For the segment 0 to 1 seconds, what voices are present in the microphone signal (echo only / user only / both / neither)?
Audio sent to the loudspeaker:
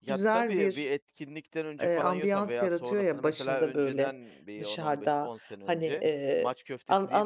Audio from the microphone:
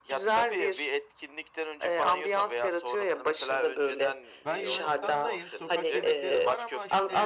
echo only